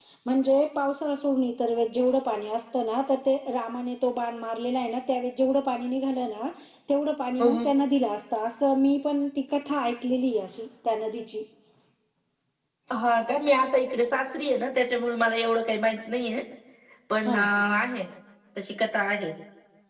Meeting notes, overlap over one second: none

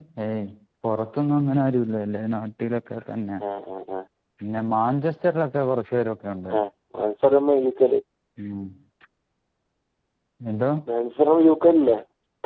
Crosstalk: none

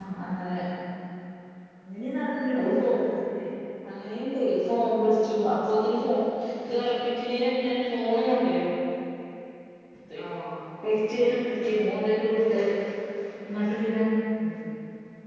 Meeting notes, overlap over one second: none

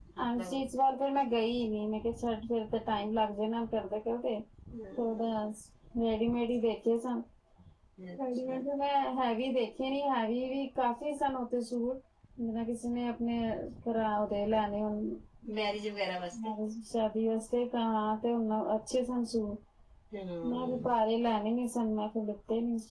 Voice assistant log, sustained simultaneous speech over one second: none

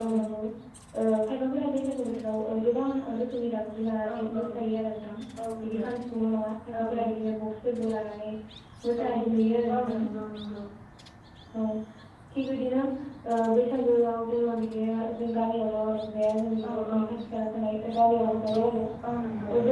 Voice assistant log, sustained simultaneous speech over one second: none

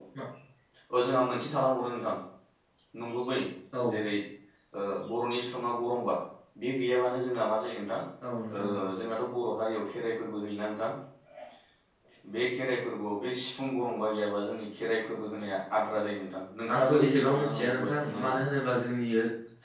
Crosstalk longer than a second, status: present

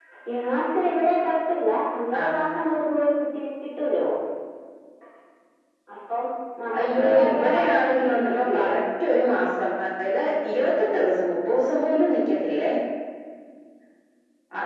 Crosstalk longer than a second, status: present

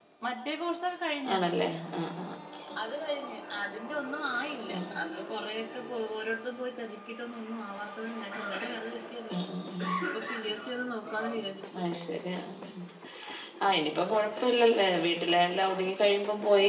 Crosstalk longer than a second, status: none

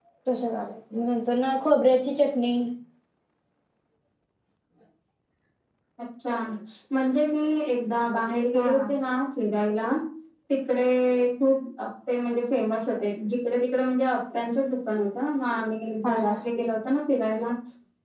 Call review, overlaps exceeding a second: none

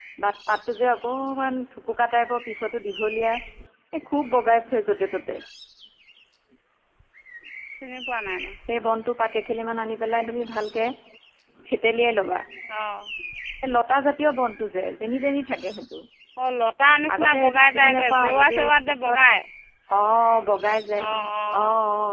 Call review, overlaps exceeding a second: present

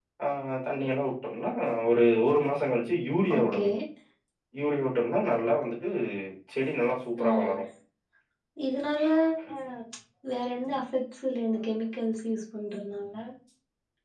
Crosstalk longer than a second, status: none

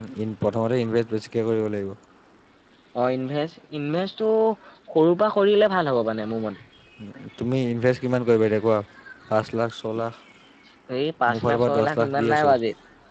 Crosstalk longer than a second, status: present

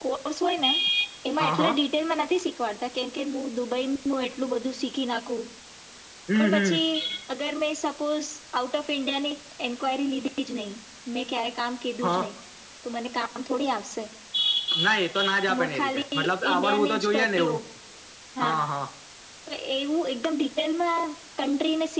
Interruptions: present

